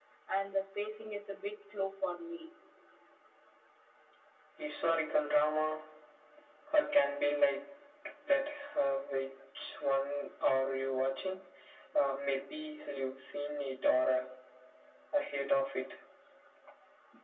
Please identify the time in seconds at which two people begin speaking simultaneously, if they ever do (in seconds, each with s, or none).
none